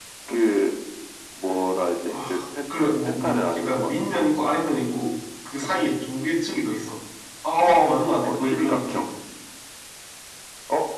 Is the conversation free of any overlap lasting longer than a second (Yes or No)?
No